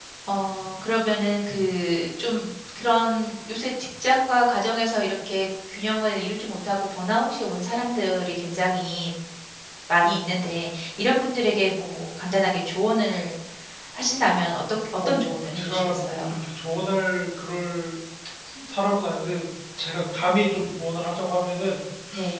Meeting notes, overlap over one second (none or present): present